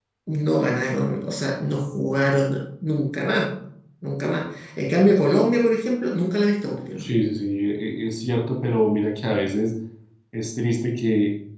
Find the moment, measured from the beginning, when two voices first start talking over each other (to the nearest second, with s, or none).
none